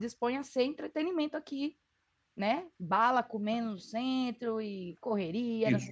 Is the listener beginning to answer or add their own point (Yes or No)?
Yes